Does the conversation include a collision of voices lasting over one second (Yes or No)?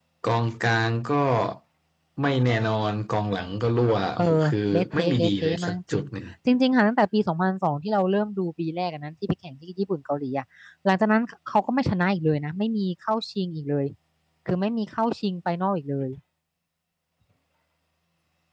Yes